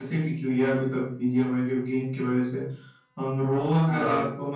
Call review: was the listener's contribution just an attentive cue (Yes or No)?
Yes